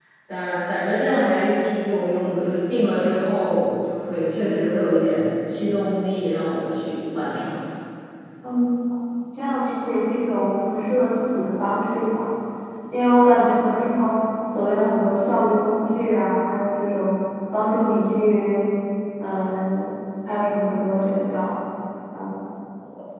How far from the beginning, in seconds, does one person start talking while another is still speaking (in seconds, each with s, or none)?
none